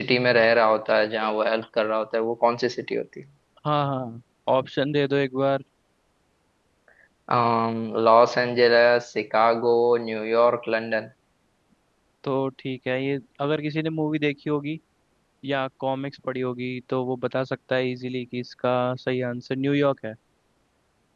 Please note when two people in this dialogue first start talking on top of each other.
none

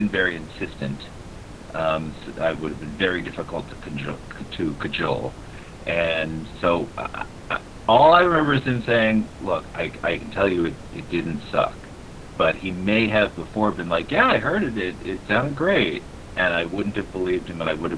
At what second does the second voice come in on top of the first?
none

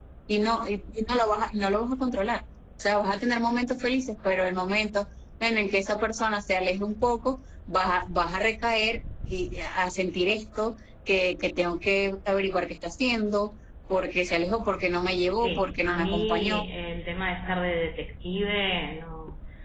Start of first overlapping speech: 15.4 s

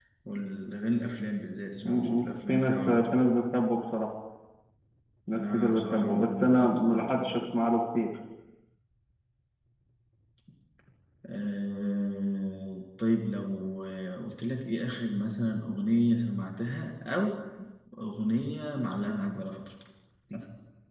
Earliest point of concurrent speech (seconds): 1.9 s

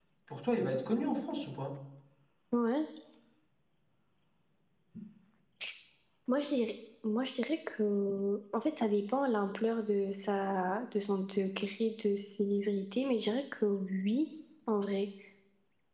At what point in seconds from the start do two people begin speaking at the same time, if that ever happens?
none

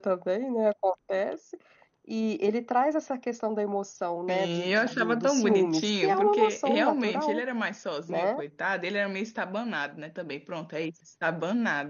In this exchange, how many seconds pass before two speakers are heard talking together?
4.3 s

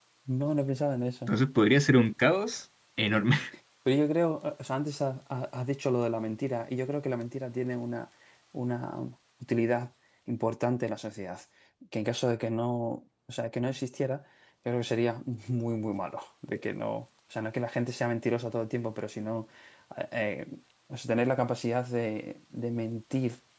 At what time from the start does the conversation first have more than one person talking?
none

